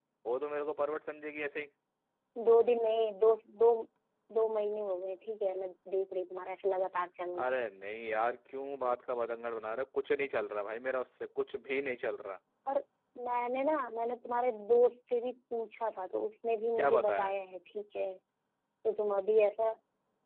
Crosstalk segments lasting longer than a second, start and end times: none

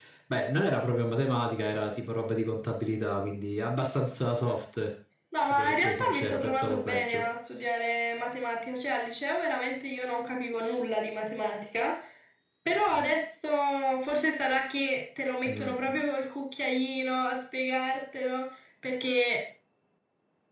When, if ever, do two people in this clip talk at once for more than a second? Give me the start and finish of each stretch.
5.5-7.2

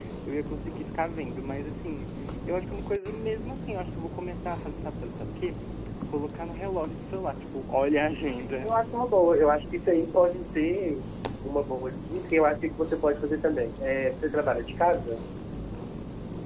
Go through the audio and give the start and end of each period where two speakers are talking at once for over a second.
none

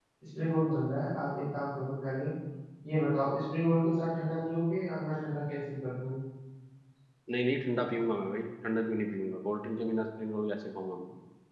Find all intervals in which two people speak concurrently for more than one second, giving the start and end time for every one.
none

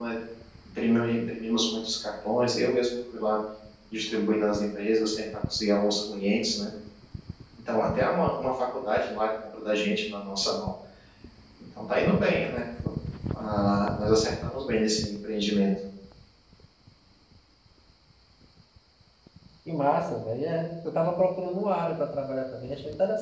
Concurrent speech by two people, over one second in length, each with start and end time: none

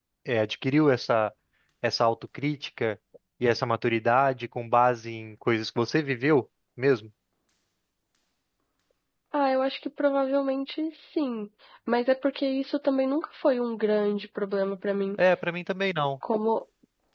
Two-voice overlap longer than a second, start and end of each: none

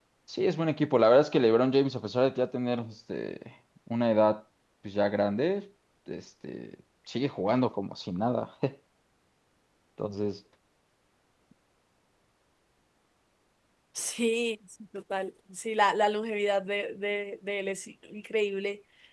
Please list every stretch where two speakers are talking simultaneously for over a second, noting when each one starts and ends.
none

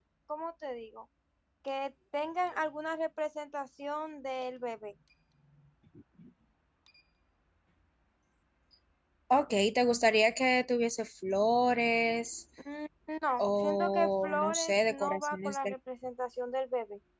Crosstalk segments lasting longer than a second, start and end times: 13.4-15.7

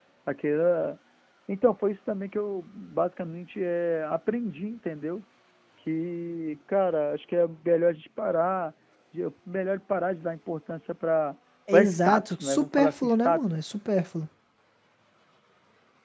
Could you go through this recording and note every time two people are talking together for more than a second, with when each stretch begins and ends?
11.7-13.4

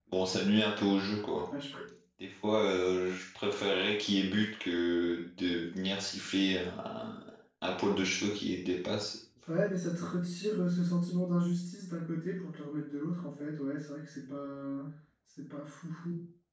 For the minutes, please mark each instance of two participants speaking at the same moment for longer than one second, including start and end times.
none

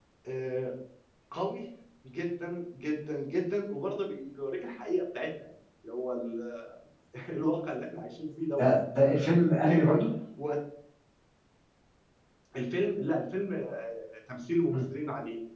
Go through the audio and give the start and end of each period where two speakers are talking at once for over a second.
none

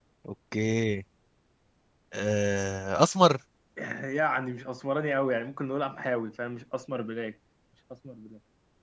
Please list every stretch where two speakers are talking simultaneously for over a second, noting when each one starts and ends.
none

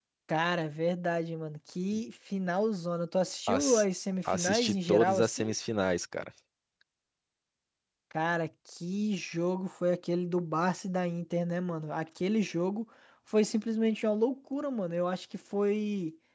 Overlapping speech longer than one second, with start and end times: 4.3-5.5

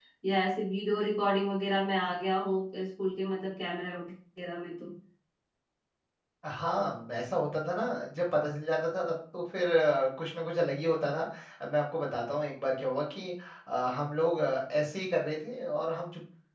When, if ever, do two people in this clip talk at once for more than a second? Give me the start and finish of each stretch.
none

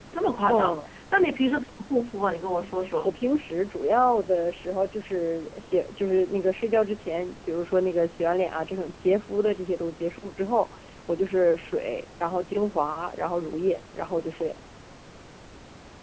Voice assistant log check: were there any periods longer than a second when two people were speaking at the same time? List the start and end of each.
none

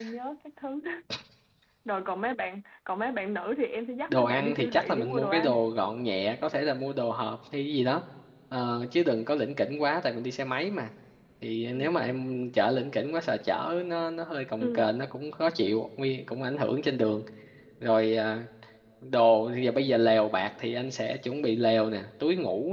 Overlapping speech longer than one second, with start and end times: 4.1-5.6

